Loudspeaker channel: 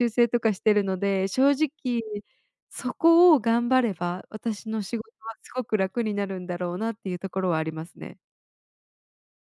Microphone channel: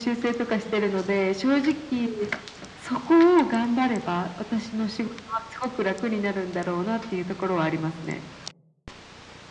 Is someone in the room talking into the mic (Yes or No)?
No